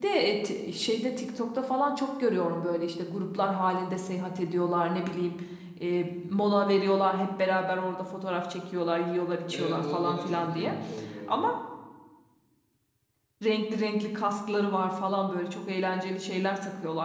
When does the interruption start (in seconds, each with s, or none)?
9.4 s